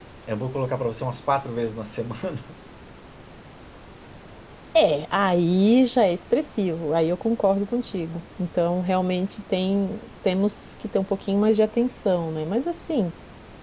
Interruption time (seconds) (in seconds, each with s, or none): none